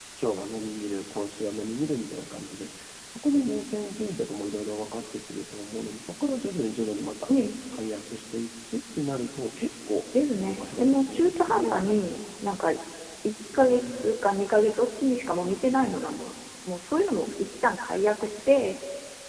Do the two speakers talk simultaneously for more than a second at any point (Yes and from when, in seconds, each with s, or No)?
Yes, from 10.4 s